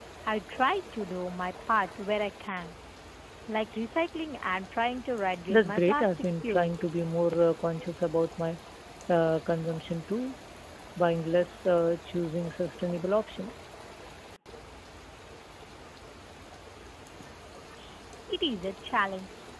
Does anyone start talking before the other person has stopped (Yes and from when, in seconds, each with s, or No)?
Yes, from 5.5 s